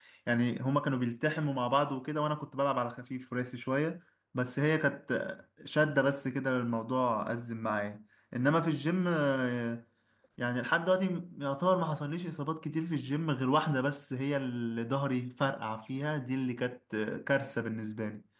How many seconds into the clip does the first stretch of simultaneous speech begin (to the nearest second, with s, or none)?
none